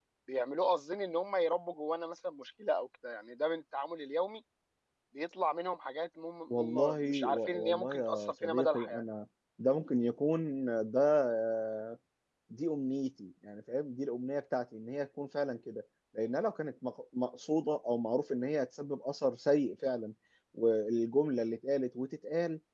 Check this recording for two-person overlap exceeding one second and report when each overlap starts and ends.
6.5-9.0

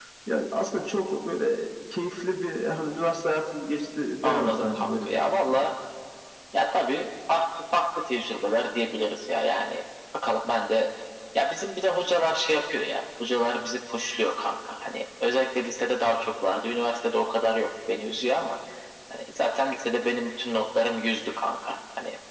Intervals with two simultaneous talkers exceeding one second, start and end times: 4.2-5.7

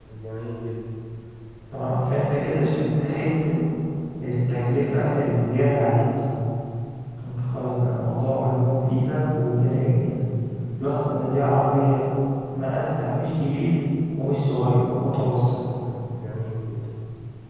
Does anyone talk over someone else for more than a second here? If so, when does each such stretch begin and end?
none

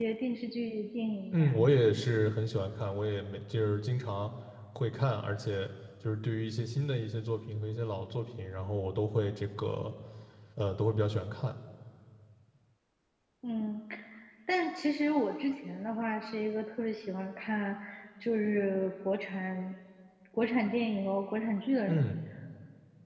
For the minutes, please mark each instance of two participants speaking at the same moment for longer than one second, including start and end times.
none

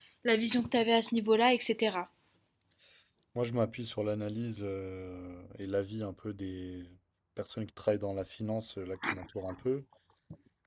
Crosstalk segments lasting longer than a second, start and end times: none

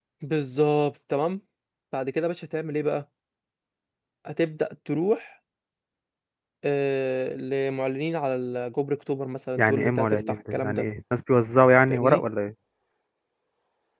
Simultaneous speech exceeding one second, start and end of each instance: 9.6-10.8

